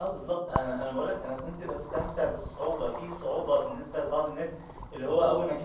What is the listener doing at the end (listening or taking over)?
listening